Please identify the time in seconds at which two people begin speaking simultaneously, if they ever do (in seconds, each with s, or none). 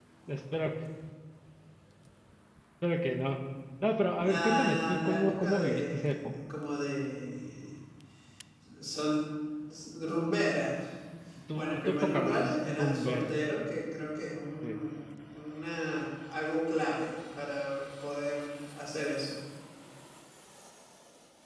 4.2 s